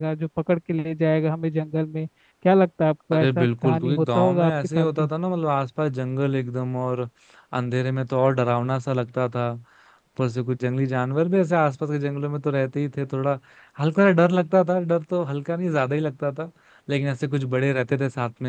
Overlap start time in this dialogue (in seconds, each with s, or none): 3.1 s